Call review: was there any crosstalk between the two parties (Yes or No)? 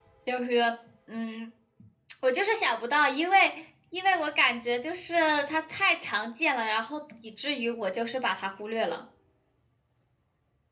No